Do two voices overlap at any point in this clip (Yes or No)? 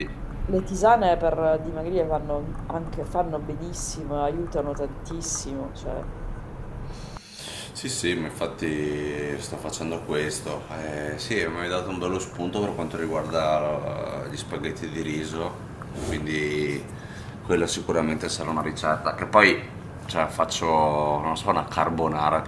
No